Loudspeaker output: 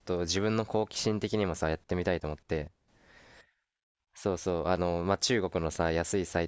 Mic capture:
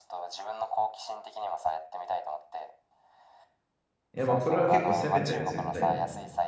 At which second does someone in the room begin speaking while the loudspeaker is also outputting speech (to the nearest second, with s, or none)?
4 s